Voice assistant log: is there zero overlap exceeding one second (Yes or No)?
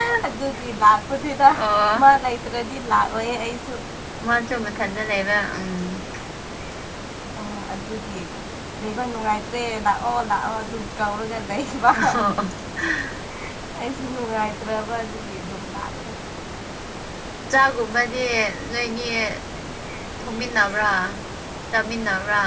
Yes